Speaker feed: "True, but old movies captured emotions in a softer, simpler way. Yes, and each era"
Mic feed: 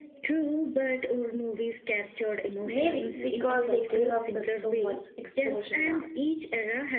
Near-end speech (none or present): present